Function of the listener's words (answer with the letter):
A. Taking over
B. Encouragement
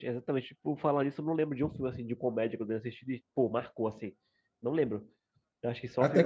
A